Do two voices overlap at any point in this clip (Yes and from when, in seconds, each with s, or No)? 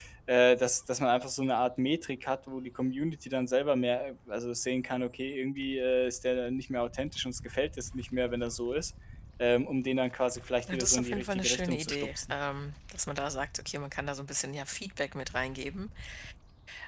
Yes, from 10.6 s